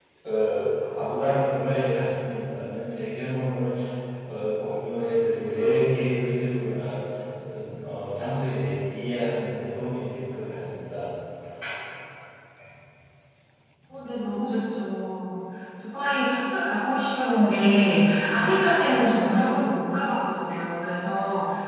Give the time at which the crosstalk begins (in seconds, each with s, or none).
none